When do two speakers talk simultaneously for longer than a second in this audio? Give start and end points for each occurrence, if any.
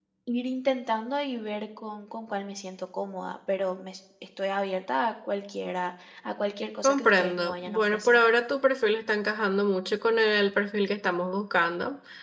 6.8-8.2

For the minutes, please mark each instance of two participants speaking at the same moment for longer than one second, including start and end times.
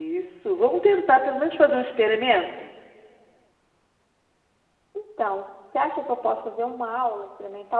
none

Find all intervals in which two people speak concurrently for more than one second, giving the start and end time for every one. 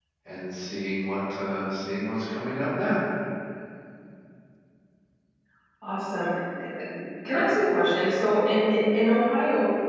none

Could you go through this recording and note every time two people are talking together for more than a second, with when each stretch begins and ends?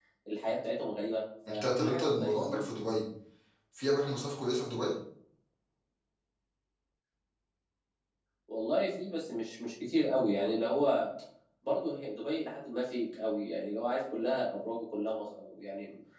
1.5-2.7

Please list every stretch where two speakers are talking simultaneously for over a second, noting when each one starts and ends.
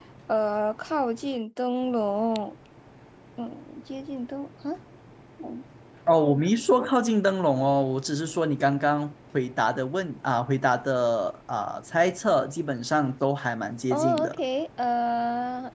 none

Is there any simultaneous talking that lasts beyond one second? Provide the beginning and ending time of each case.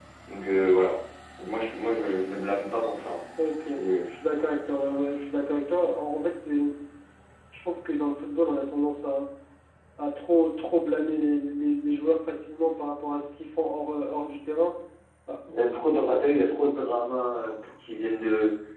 none

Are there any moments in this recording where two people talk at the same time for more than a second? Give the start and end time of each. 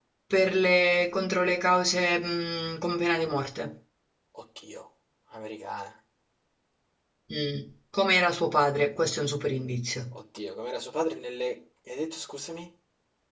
none

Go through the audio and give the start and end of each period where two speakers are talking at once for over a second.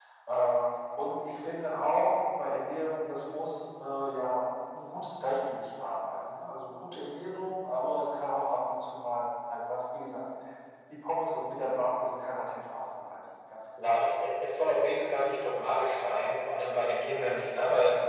none

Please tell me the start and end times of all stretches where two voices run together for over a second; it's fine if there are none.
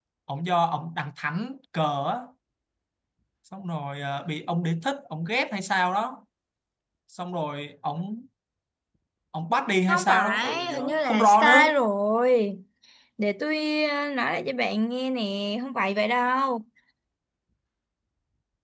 9.9-11.7

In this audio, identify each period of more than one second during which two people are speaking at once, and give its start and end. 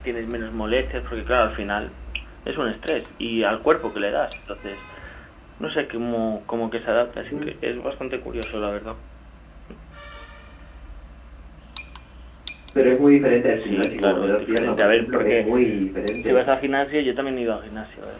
13.6-15.5

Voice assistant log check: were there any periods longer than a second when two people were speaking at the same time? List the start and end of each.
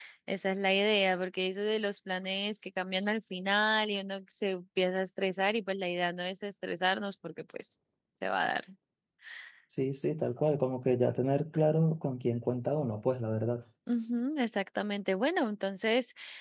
none

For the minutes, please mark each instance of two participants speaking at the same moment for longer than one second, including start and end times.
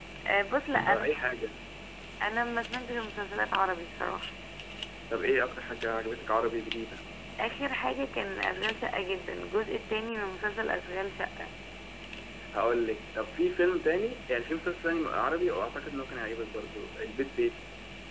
none

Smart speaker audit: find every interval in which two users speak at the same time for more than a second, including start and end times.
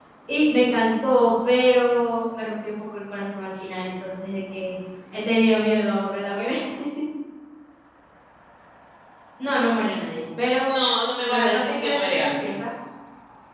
11.3-12.5

